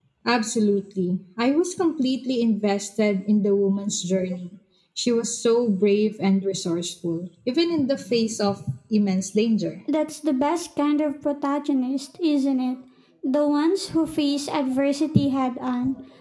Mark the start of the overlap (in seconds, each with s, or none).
none